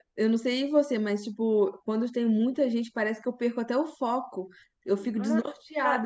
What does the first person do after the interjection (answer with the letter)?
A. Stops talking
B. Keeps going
A